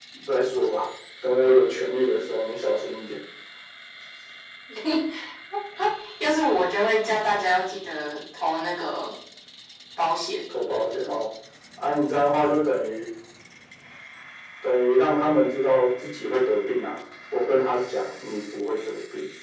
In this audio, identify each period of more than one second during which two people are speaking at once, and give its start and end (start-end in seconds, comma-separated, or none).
none